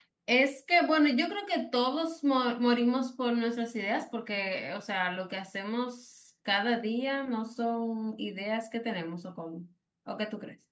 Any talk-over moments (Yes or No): No